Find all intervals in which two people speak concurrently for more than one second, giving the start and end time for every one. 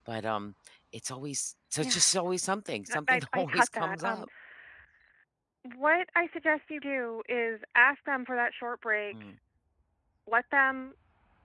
2.9-4.2

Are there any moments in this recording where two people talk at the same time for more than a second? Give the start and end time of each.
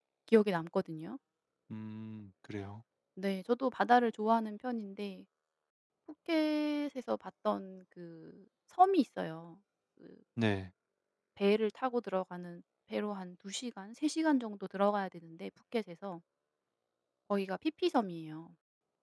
none

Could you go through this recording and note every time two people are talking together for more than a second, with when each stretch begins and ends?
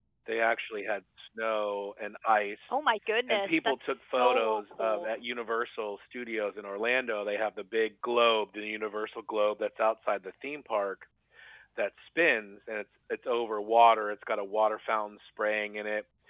3.3-5.1

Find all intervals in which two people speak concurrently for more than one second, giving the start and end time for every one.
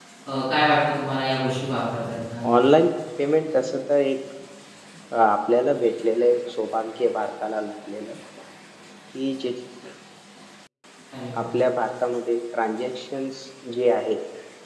none

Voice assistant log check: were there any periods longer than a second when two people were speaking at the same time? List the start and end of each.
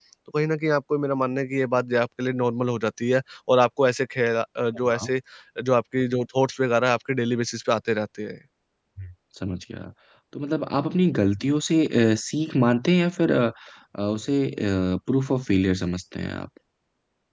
none

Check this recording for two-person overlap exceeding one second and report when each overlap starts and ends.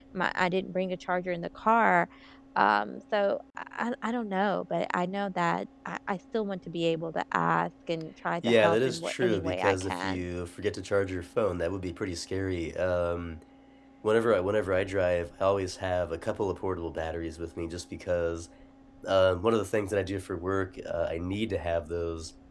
8.4-10.2

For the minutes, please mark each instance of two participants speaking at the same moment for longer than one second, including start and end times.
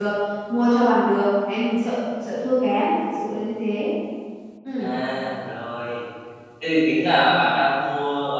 none

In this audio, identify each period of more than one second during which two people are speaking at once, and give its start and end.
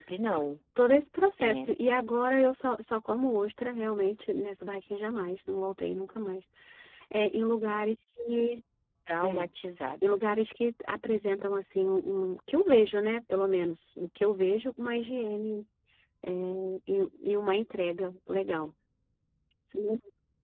none

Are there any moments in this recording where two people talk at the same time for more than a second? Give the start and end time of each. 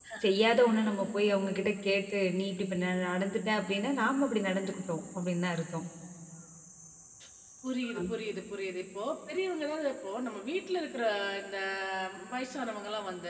none

